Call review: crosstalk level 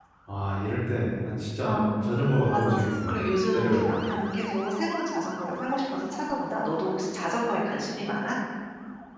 present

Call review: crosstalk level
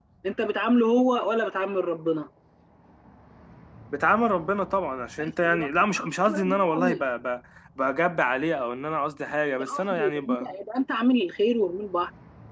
present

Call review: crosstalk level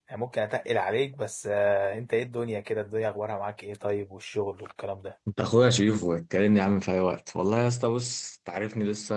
none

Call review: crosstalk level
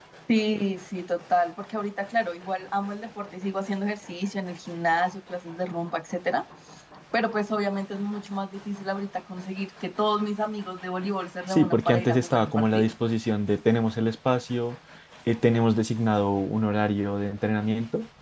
present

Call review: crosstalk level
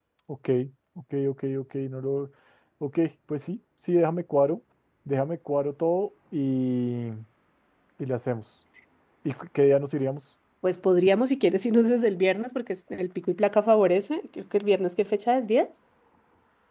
none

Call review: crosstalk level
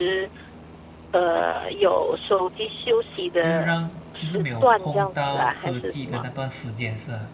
present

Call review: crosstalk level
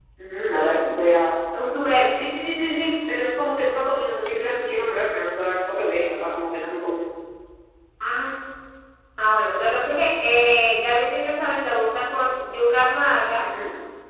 none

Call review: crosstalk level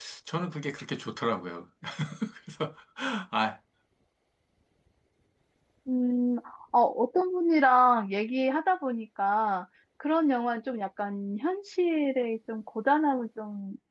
none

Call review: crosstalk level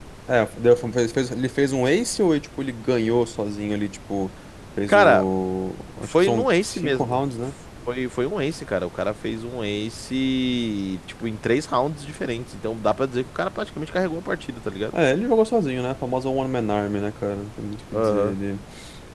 present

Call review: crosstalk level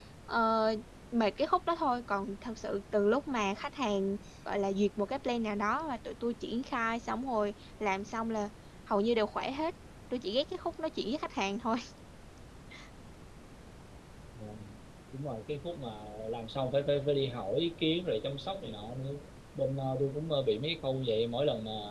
none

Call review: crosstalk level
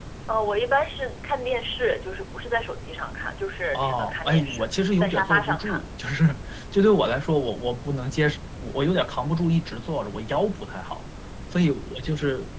present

